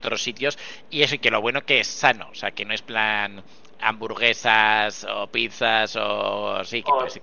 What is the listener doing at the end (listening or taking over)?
taking over